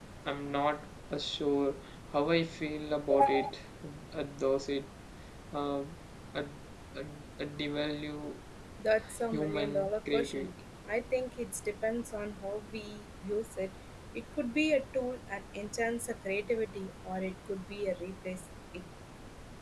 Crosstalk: present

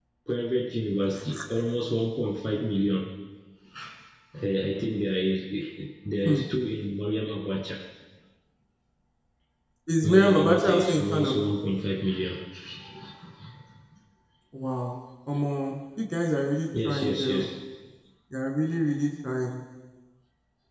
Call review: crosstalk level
present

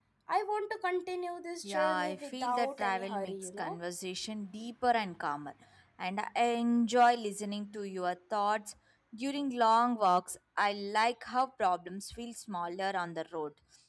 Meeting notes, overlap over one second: present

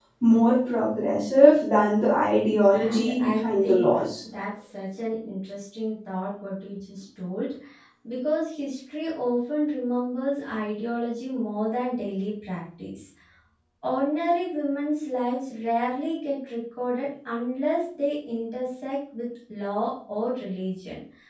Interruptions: present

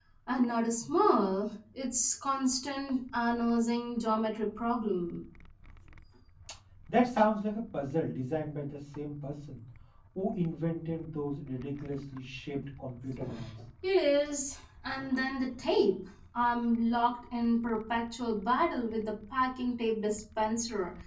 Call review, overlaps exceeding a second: none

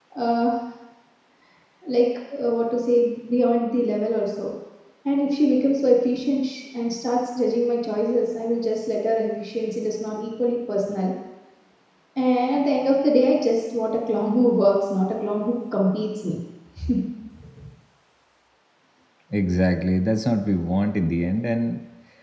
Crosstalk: none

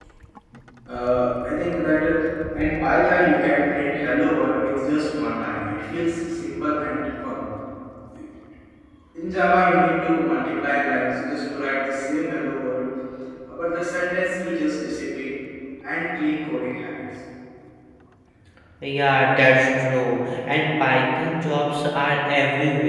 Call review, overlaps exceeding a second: none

